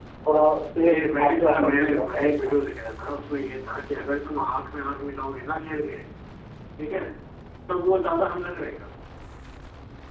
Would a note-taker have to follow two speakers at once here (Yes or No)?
Yes